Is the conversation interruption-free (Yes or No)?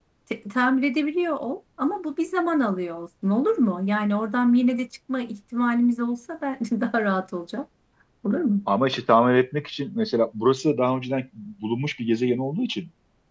Yes